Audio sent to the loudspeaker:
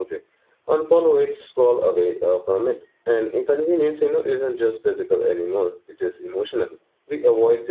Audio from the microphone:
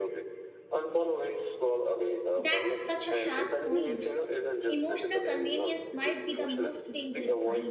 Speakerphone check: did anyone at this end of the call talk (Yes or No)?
Yes